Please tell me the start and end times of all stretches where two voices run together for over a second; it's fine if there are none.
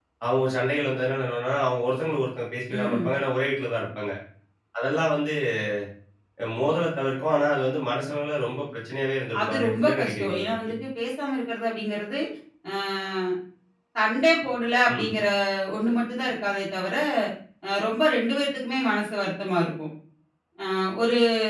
9.4-10.7

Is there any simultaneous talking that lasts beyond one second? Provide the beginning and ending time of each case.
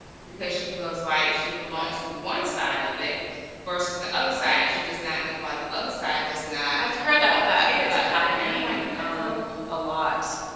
7.3-9.4

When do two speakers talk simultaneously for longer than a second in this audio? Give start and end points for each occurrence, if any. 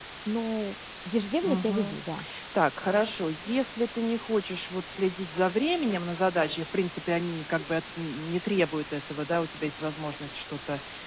none

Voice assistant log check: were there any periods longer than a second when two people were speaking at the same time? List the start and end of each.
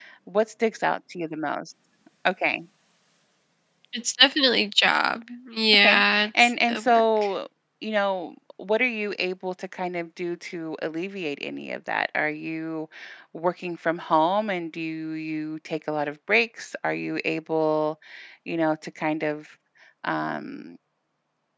5.7-7.3

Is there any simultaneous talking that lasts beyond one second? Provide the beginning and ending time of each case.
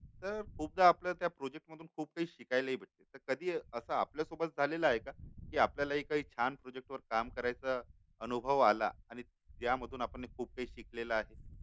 none

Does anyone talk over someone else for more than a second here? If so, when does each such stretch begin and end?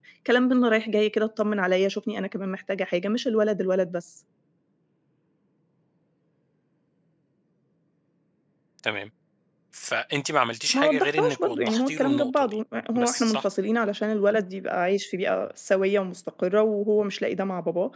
10.7-12.6

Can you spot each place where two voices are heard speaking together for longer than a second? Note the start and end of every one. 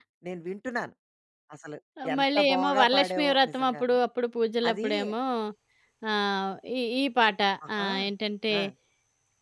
2.1-3.8

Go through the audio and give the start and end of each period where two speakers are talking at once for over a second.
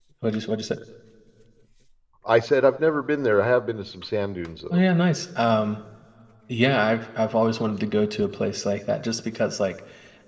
none

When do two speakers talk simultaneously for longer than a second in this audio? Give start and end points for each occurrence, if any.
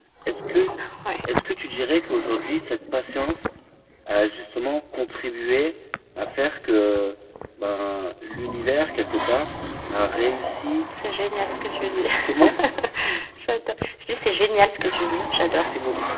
none

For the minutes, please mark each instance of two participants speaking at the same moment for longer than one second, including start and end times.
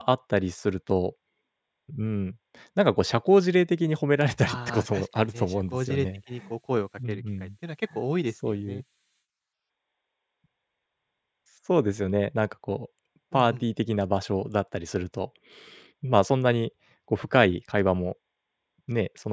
4.5-6.1

